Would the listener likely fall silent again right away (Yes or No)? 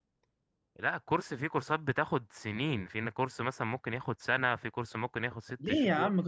No